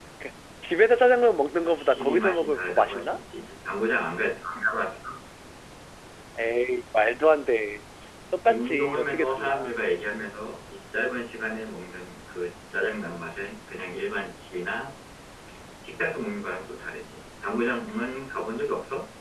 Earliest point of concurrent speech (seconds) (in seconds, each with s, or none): 1.6 s